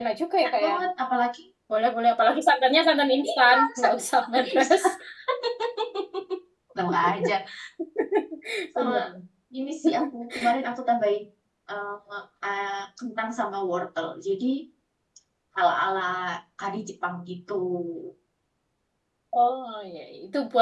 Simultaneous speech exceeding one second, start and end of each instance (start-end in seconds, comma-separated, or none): 3.3-4.8